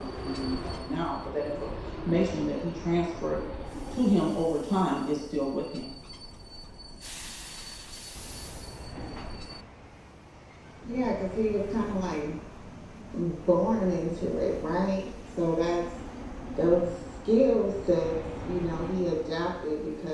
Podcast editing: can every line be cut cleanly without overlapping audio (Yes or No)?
Yes